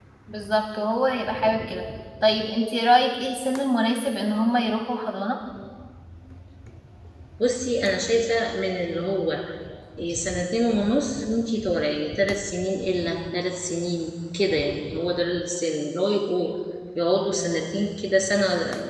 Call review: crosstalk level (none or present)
none